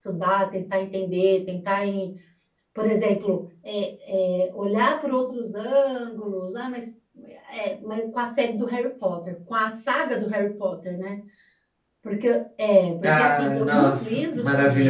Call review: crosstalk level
present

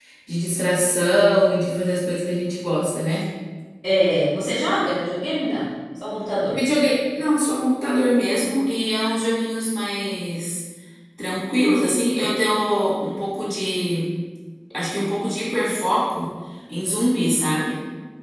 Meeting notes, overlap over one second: none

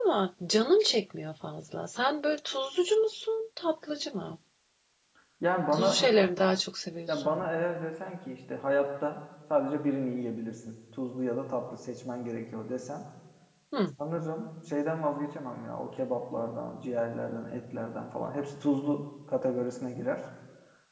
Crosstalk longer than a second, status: none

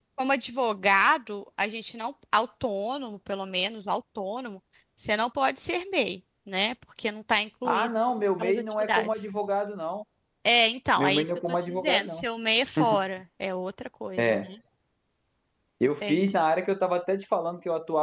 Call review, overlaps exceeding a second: present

